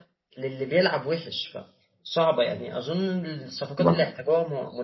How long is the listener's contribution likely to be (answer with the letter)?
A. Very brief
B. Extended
A